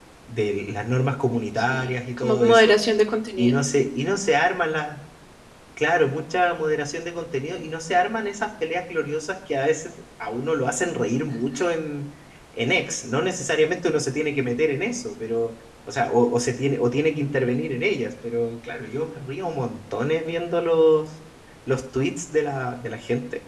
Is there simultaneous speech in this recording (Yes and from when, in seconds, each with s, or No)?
Yes, from 1.6 s